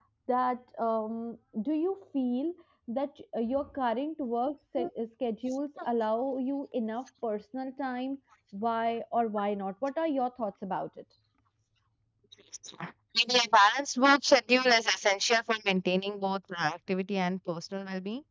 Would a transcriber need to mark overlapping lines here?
No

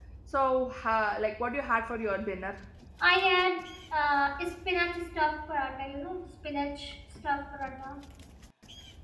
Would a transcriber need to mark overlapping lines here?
No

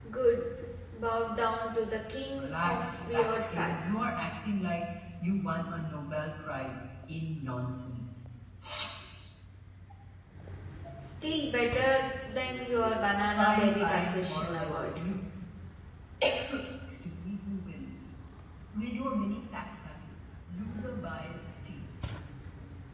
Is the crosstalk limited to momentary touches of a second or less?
No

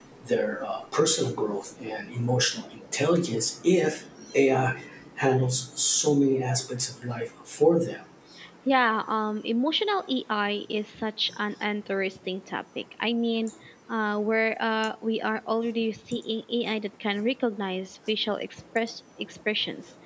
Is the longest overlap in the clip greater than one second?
No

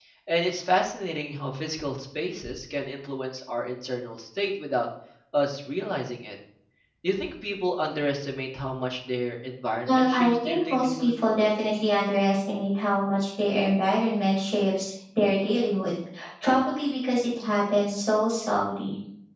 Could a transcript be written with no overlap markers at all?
No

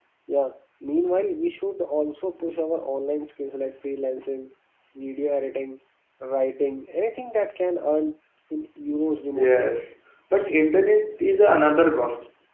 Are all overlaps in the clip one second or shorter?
Yes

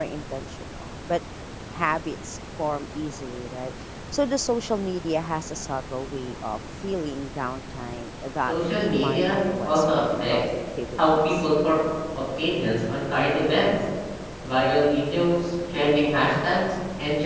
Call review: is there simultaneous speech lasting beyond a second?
Yes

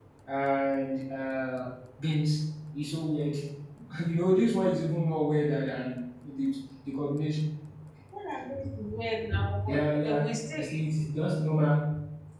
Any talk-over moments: Yes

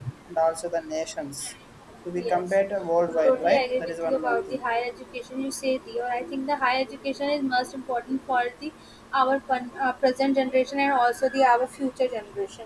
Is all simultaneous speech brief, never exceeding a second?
No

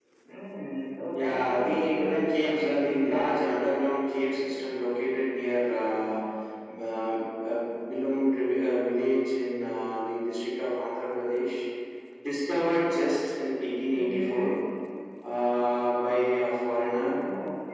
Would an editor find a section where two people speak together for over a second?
Yes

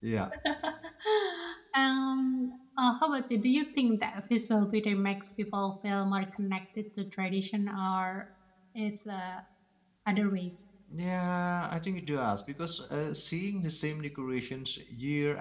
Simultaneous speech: No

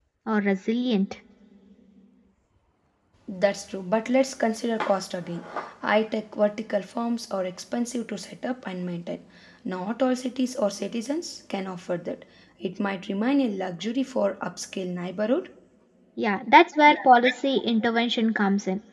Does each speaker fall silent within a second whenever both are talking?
Yes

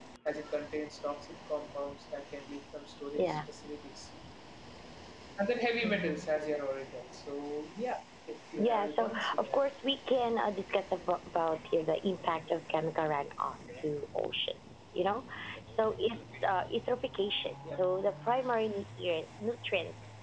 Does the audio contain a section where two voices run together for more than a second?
Yes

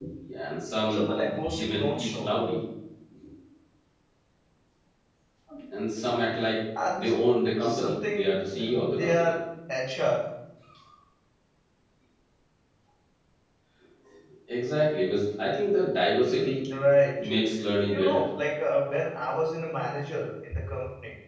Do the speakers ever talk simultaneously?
Yes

